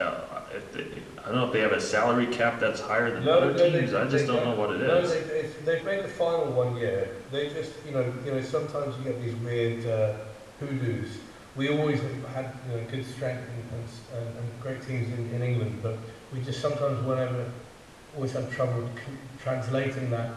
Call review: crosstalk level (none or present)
present